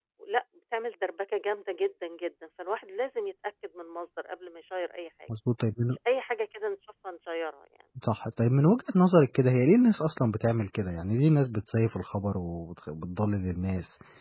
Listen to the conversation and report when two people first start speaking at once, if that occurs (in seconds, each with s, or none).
none